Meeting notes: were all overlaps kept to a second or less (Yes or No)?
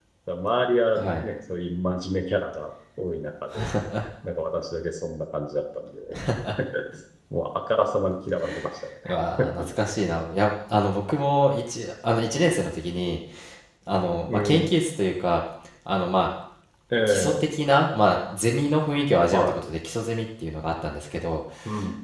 Yes